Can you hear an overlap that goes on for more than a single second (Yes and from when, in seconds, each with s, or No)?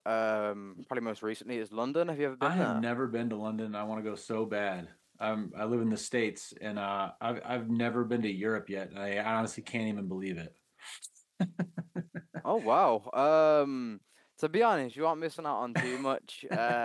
No